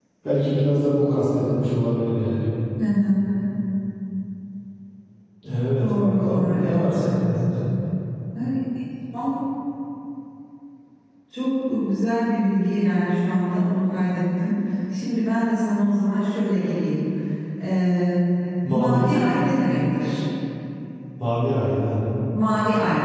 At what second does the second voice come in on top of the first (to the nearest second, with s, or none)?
6 s